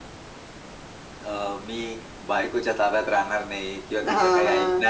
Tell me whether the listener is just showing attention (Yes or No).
Yes